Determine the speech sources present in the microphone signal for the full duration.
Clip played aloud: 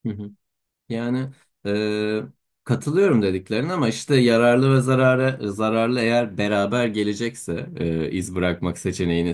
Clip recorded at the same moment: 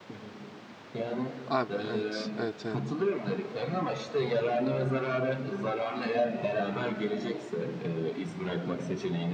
both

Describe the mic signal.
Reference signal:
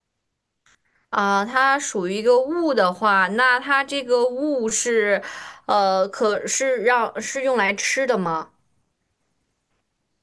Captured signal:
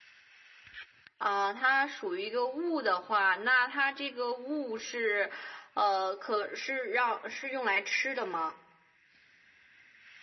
echo only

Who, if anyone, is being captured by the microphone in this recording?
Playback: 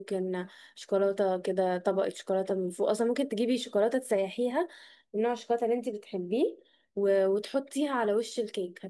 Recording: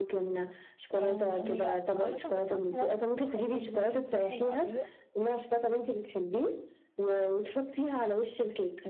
both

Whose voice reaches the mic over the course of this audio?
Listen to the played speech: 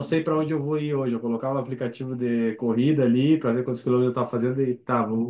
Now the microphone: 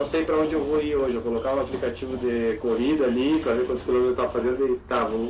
echo only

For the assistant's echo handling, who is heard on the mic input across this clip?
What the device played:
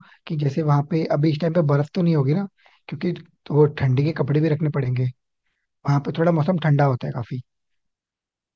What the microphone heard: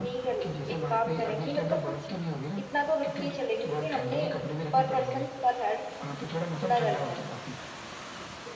both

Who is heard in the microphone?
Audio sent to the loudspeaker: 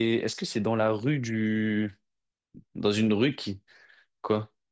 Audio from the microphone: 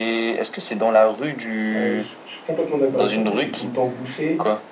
both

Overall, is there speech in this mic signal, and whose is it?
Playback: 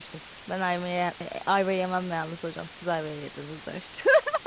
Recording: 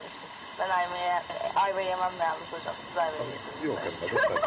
both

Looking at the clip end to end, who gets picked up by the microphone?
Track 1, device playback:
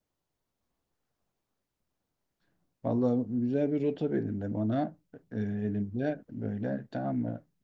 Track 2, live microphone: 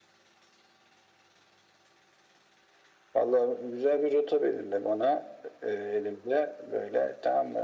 echo only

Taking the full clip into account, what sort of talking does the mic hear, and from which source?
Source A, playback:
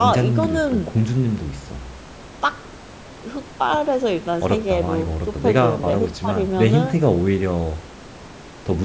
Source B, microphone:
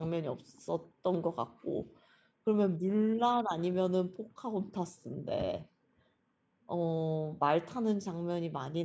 user only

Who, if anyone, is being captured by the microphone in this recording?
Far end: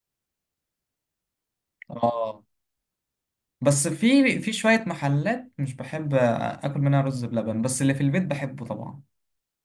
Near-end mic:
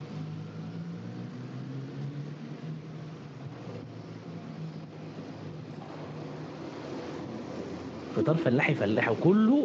user only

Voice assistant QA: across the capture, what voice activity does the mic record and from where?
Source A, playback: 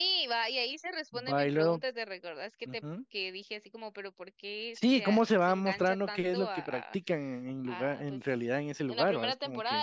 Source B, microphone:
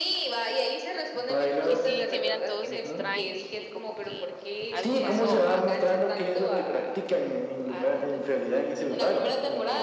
both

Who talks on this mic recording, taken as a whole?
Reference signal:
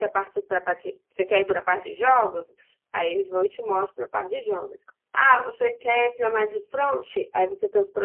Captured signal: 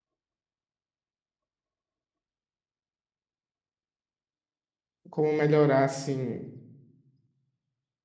user only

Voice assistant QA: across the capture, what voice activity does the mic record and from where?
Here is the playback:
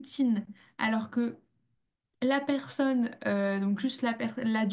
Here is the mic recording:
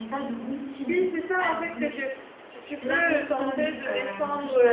both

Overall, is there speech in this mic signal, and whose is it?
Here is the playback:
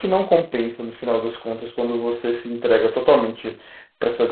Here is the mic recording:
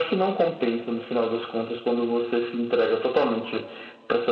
echo only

